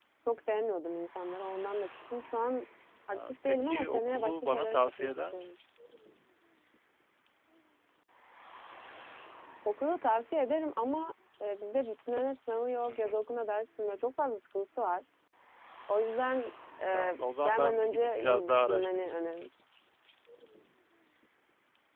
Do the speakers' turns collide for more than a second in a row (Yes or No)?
Yes